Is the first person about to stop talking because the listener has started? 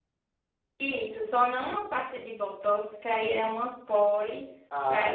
Yes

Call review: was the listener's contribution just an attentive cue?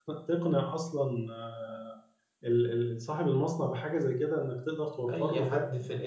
No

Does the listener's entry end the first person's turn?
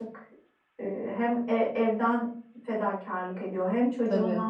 No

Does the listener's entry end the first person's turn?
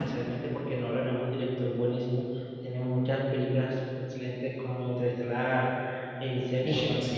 No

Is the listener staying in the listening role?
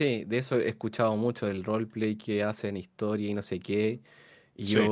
Yes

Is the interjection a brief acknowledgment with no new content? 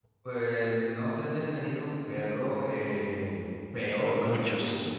Yes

